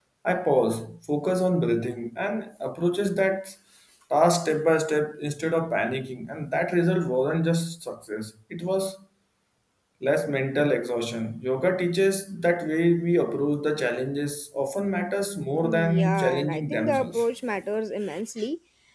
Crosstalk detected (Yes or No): Yes